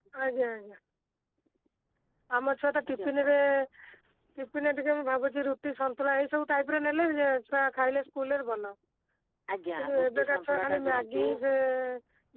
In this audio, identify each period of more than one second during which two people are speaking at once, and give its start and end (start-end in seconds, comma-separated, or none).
9.8-11.2